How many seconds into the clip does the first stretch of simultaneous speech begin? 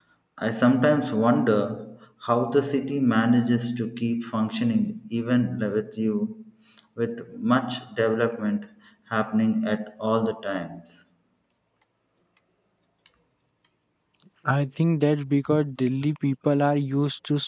none

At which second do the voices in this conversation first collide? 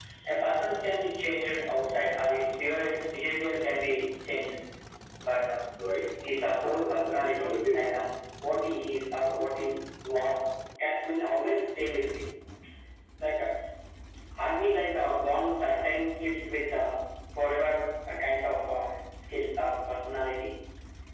6.5 s

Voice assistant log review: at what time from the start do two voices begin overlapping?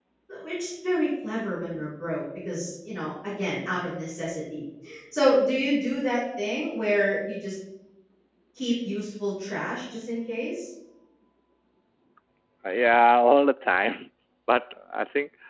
none

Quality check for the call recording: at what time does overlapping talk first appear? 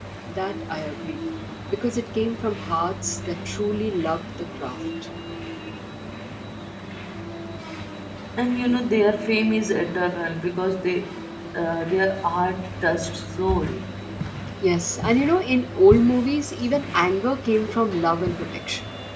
none

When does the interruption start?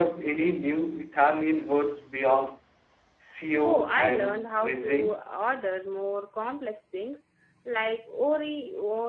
3.6 s

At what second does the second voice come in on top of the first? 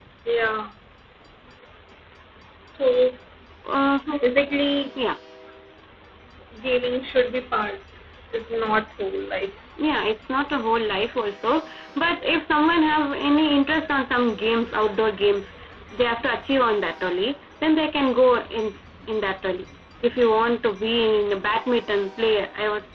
none

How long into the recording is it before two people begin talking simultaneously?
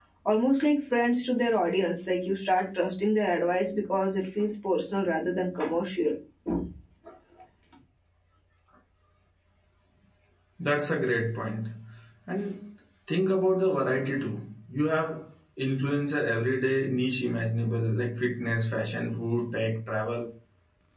none

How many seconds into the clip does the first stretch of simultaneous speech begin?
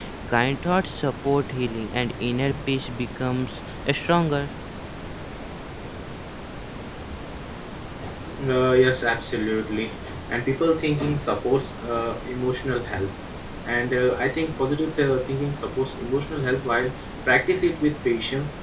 none

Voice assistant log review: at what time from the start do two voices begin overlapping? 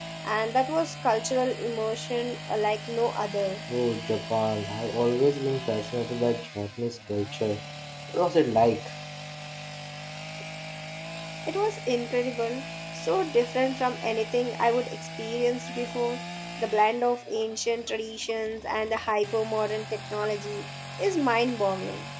none

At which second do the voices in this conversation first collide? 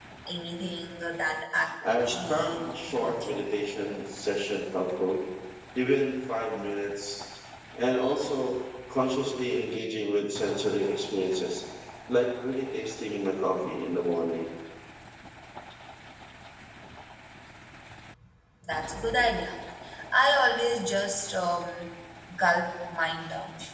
1.8 s

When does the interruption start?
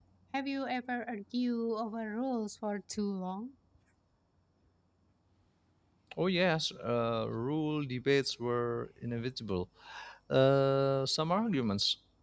none

